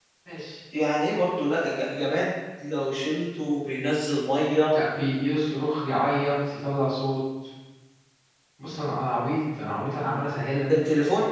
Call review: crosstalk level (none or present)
none